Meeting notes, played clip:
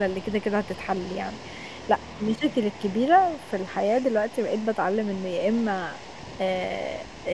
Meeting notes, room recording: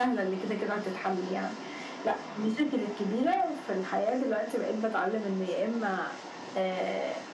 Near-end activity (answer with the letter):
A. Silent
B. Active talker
A